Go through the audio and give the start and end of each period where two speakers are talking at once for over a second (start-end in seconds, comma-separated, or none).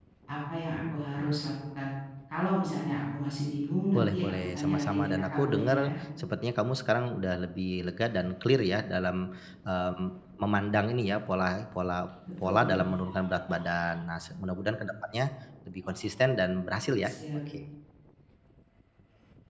3.9-5.8